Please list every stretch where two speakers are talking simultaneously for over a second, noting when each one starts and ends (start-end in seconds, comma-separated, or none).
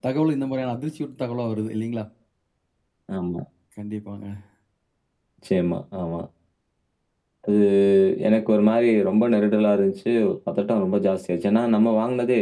none